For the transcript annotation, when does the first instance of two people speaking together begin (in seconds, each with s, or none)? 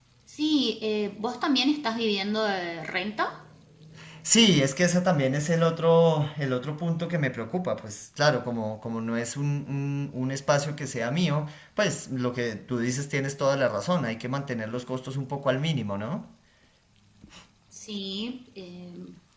none